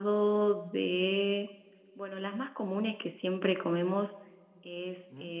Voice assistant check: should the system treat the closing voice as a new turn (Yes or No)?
No